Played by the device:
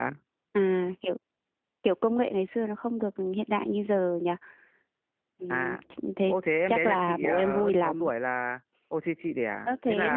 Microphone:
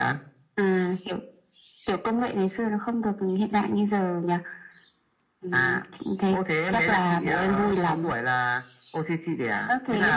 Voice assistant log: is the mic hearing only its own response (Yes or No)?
Yes